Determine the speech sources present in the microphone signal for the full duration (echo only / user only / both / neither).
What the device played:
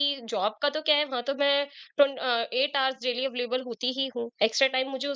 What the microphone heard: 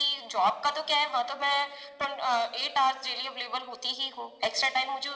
echo only